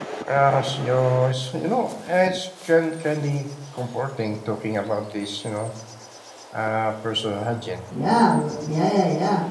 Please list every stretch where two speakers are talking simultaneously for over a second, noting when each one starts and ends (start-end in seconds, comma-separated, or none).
none